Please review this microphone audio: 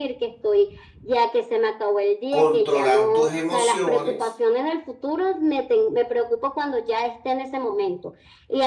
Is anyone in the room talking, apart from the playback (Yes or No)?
Yes